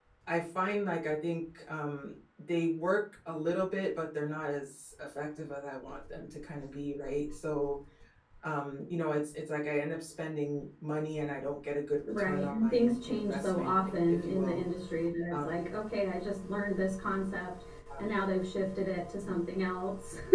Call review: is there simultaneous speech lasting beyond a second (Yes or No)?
Yes